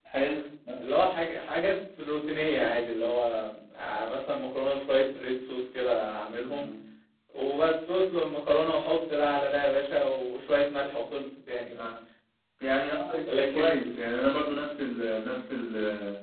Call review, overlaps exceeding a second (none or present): none